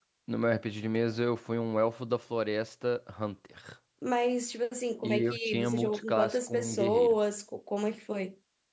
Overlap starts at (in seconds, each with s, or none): 5.0 s